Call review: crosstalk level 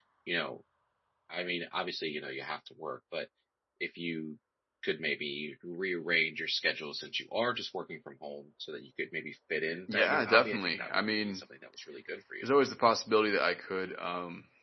present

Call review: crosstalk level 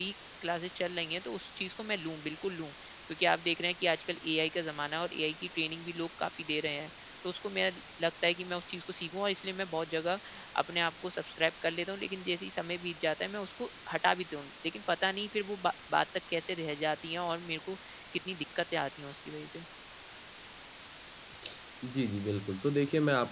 none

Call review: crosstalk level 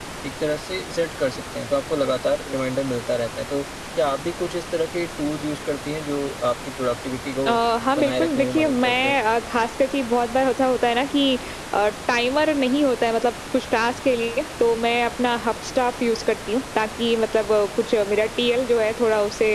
present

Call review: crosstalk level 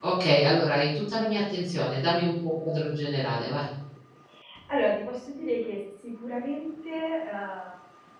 none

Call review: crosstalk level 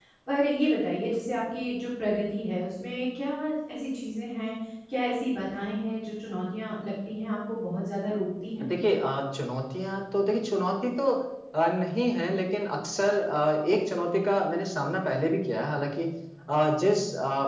none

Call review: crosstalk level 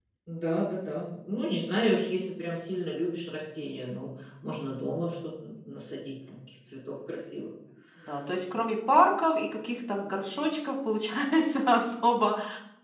none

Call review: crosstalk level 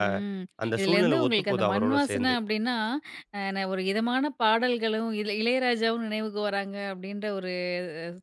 present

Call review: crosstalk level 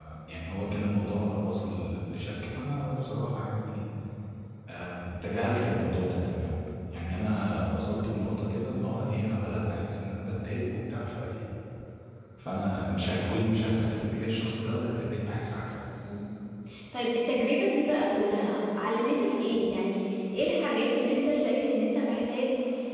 none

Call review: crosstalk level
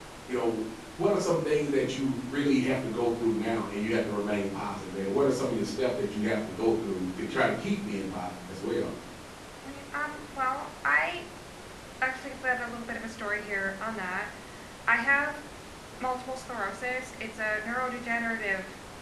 none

